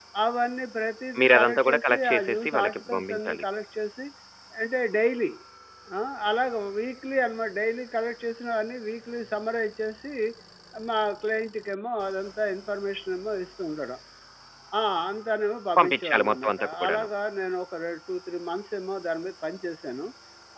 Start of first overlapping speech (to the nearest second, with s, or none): 1 s